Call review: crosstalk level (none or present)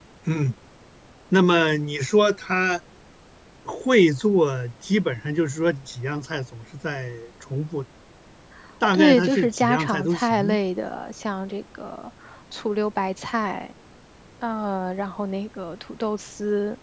present